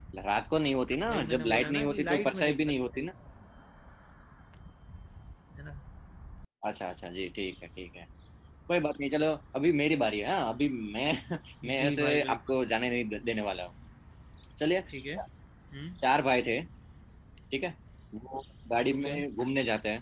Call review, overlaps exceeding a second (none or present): present